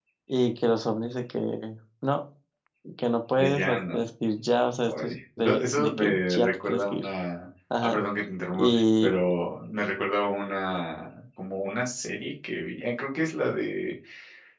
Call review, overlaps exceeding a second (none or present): present